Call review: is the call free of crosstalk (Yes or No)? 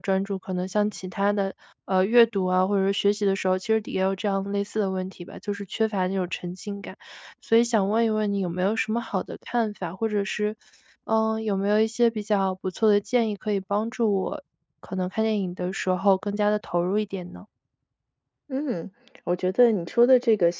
Yes